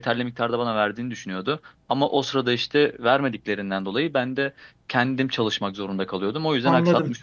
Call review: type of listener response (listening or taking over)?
taking over